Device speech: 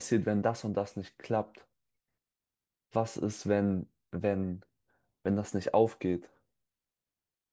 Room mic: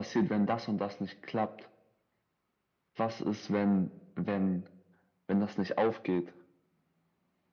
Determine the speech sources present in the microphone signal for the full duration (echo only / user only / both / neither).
echo only